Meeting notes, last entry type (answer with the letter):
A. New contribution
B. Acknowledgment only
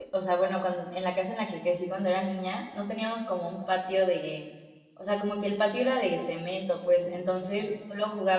B